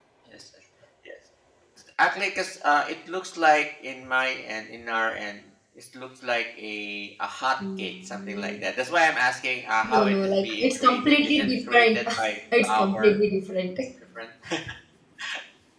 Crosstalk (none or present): present